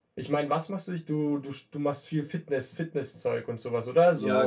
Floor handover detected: Yes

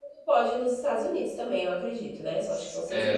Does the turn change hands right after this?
Yes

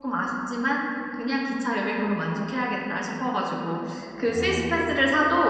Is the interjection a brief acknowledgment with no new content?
Yes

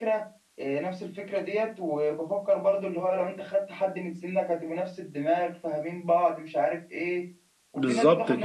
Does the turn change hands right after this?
No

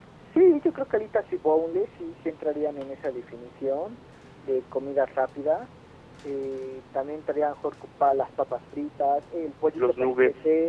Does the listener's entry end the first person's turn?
No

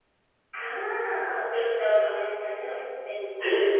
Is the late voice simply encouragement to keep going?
No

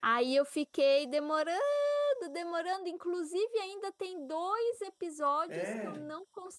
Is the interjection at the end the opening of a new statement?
No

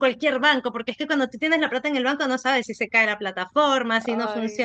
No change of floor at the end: Yes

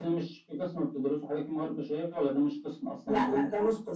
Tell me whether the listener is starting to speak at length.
Yes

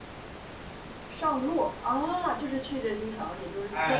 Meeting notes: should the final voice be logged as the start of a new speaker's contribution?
Yes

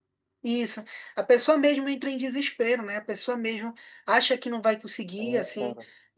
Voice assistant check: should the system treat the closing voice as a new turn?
No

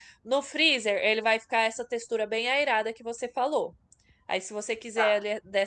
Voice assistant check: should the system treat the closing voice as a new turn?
No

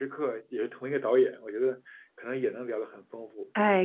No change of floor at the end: No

